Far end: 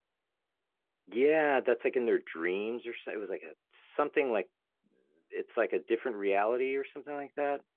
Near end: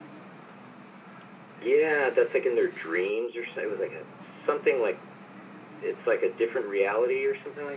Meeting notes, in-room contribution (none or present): none